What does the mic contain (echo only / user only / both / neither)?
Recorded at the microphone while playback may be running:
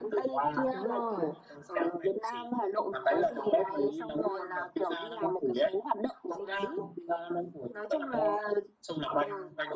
both